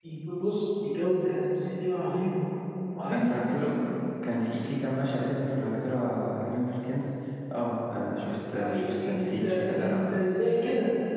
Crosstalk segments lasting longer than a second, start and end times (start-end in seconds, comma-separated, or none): 8.6-10.0